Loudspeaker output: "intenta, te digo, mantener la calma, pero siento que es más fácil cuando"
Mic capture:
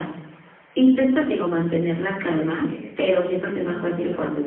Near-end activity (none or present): present